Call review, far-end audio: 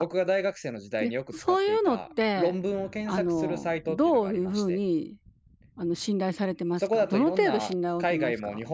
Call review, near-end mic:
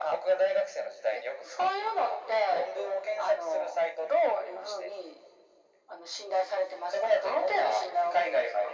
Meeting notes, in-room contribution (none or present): none